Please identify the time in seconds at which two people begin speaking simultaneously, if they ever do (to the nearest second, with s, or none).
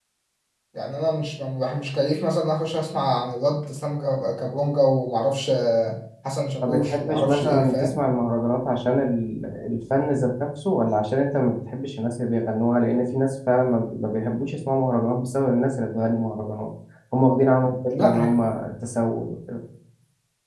7 s